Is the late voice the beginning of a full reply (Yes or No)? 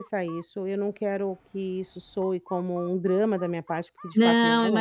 Yes